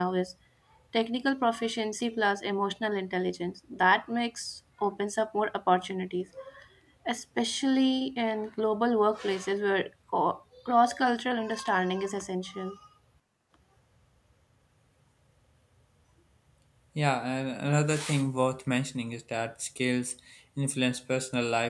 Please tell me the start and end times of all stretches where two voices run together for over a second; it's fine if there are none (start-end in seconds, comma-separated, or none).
none